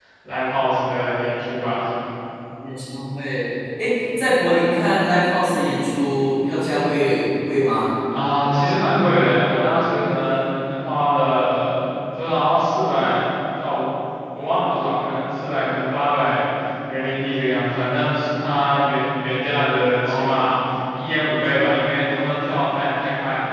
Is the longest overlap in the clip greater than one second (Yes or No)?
No